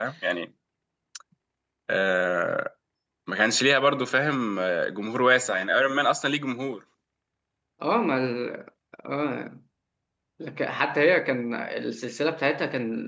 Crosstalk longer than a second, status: none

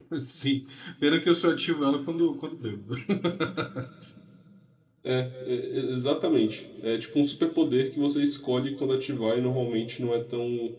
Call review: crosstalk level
none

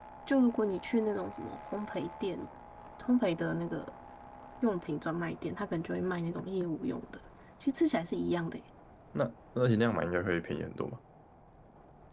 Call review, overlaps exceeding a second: none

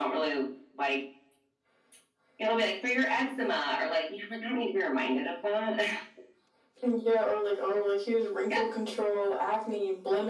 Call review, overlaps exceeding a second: none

